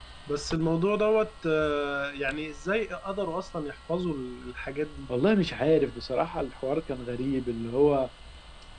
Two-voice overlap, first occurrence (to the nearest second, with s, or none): none